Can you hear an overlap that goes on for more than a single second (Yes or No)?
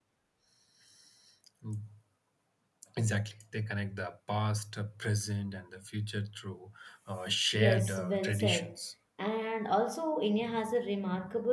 Yes